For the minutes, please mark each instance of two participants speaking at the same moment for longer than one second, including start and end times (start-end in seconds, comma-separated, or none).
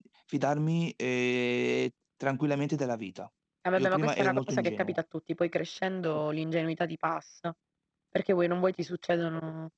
3.8-5.0